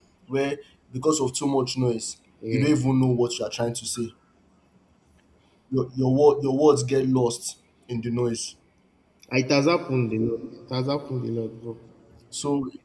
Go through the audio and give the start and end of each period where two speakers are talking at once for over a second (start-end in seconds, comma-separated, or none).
none